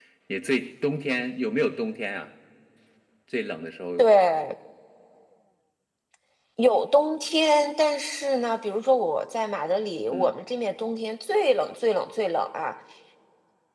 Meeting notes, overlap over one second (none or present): none